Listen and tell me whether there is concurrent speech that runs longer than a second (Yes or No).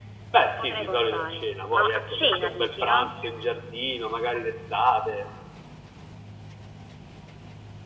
Yes